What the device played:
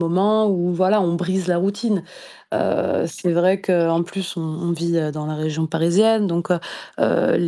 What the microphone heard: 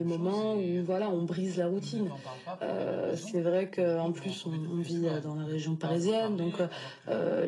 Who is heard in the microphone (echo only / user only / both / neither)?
both